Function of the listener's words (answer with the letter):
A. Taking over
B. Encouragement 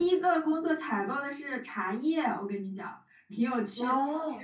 B